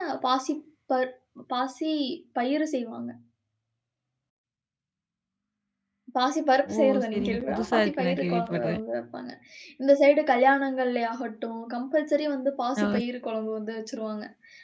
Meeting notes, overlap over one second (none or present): present